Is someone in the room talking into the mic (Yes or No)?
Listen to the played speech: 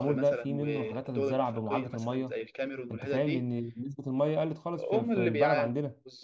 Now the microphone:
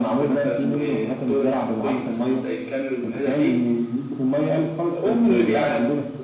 No